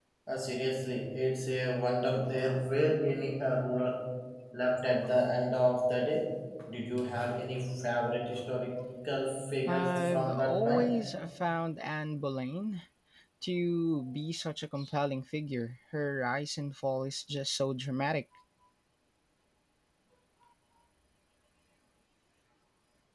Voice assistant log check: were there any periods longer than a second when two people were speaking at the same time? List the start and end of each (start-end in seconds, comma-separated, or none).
9.7-10.9